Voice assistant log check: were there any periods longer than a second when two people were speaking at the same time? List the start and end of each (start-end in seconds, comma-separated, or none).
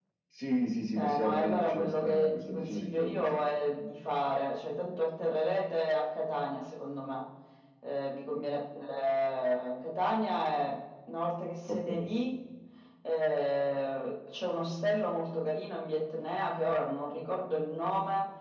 1.0-3.4